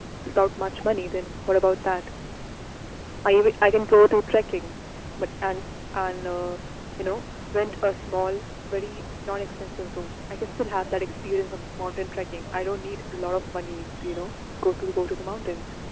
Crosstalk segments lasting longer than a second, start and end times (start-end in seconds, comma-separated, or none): none